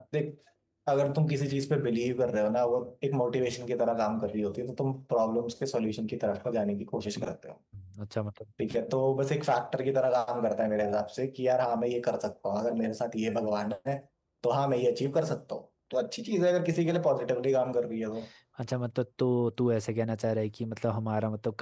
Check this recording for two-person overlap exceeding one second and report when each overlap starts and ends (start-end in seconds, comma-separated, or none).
none